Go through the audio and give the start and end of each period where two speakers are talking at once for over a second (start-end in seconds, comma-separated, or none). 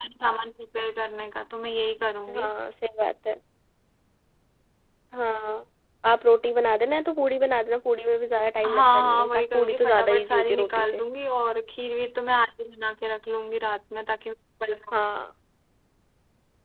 8.6-11.0